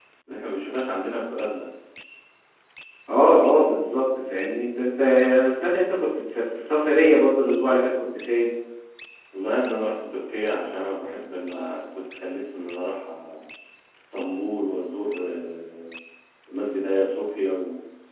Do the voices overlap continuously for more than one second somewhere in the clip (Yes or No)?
No